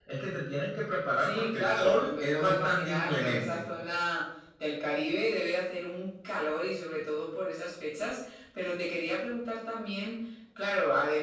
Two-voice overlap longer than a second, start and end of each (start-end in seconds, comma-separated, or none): 1.2-3.6